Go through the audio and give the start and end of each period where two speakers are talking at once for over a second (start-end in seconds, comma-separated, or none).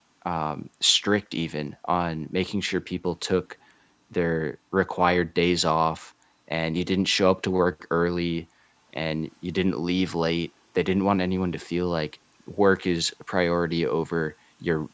none